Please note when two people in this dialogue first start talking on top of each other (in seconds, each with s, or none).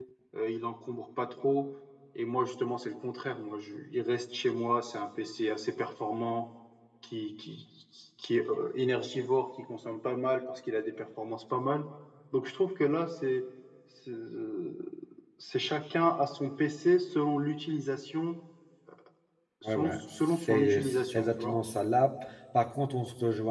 19.6 s